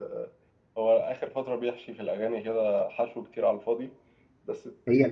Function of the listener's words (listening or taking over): taking over